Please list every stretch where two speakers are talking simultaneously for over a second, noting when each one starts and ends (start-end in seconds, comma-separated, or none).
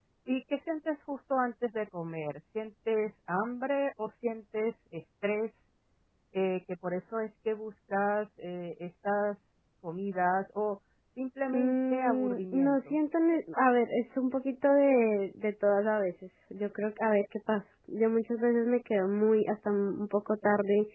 11.5-13.0